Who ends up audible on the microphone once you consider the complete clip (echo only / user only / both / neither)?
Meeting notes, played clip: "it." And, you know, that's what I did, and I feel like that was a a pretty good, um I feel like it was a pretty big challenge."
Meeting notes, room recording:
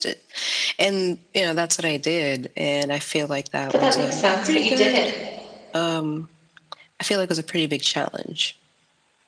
both